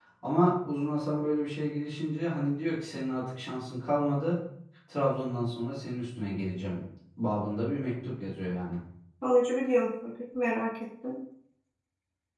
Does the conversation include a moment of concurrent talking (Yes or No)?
No